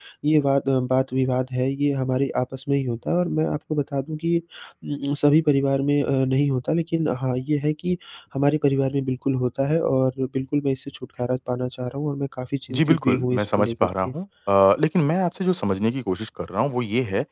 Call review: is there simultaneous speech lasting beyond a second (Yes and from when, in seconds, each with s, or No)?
Yes, from 12.7 s